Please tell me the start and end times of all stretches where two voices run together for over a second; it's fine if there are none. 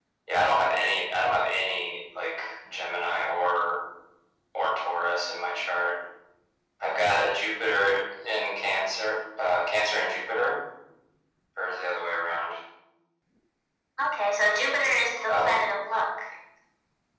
none

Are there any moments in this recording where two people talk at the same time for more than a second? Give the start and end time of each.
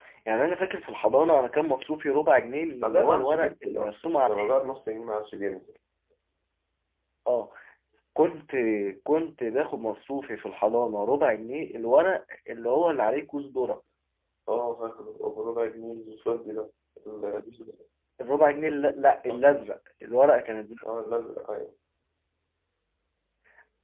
2.8-4.6

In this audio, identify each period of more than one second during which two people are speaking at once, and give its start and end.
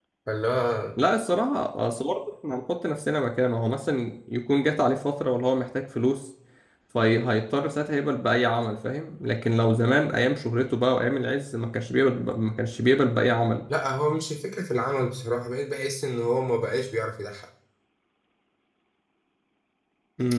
none

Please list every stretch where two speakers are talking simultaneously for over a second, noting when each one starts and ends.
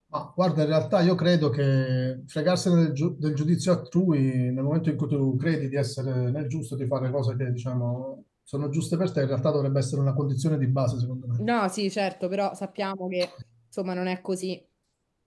none

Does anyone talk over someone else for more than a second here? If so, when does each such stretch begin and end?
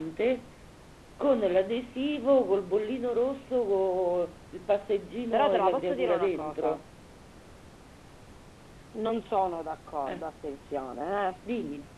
5.3-6.8

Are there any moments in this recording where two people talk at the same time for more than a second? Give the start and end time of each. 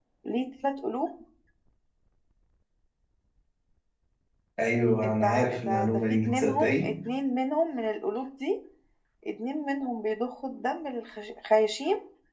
5.2-6.9

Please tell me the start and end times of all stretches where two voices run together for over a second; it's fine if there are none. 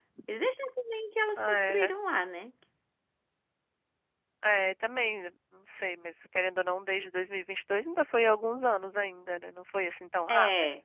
none

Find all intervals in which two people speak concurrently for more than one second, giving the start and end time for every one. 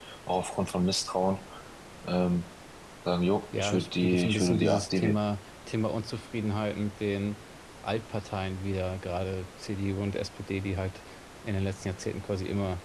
3.6-5.2

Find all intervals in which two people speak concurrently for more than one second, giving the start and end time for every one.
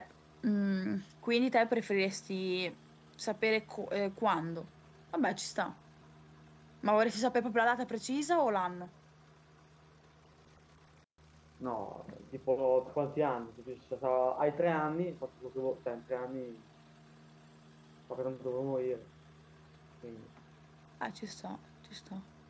none

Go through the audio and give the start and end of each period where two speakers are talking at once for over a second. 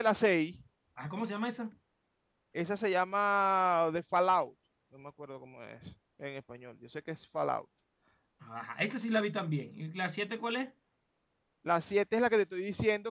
none

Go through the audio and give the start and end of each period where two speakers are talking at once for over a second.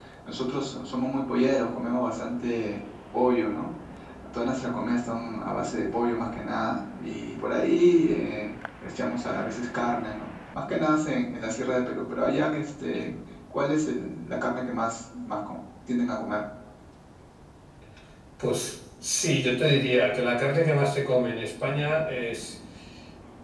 none

